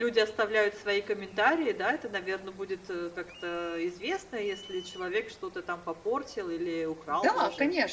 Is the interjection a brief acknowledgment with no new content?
No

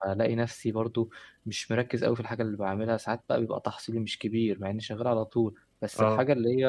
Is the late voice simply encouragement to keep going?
Yes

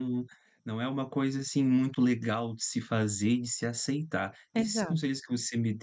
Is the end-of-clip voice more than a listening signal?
No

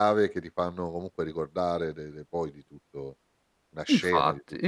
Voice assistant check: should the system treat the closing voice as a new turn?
Yes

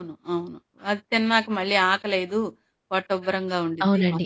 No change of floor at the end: No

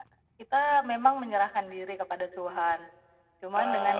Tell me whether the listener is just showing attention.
Yes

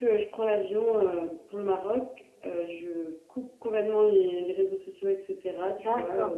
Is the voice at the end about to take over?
Yes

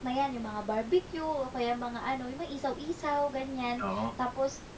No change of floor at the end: Yes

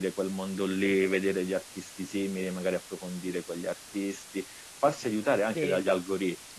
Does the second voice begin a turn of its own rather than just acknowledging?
No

